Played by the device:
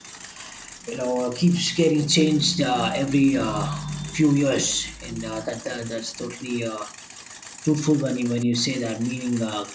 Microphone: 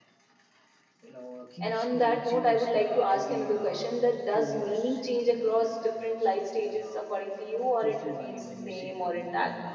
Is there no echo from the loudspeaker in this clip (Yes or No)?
No